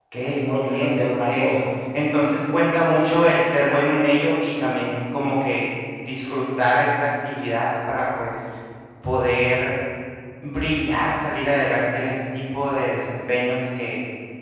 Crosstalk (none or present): present